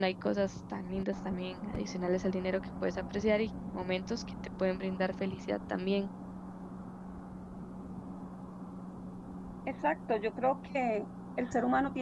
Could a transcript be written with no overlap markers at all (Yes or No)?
Yes